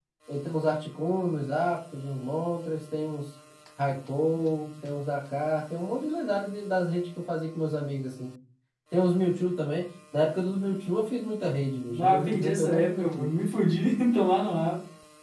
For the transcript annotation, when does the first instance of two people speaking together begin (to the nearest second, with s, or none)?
12 s